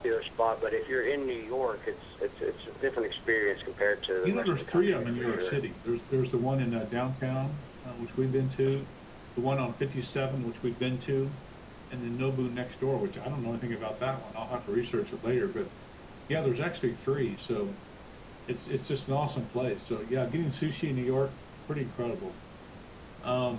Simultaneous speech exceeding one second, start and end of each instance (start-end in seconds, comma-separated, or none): 4.2-5.7